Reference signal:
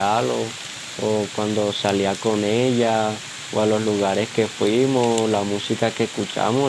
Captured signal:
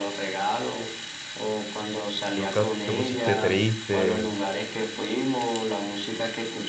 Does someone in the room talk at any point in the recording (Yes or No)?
Yes